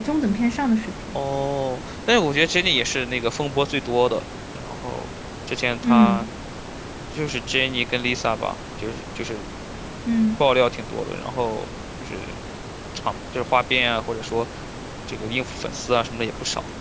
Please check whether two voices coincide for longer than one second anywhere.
No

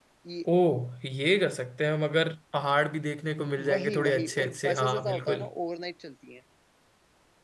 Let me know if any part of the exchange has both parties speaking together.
Yes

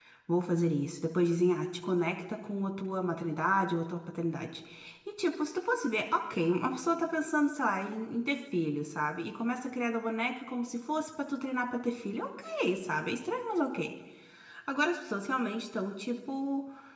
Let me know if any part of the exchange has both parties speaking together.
No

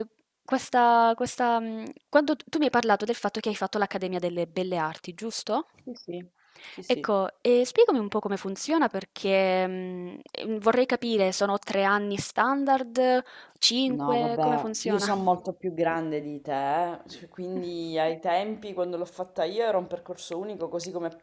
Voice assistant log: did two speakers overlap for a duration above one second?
Yes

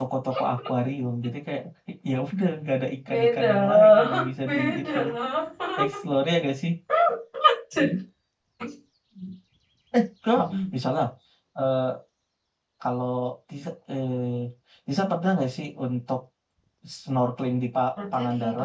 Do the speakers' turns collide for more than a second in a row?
Yes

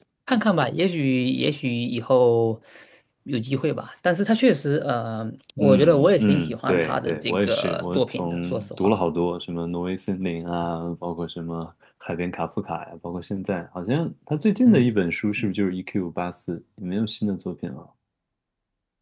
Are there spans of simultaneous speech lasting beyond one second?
Yes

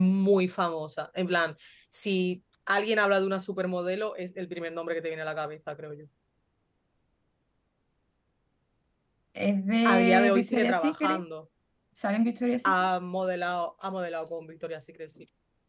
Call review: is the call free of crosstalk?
No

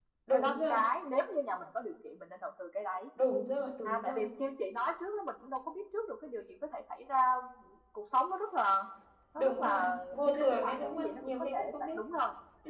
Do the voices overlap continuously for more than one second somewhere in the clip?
Yes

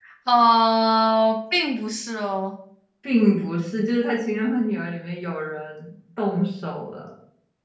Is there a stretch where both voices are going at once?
No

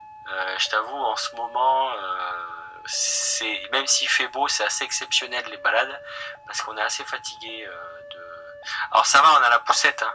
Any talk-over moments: No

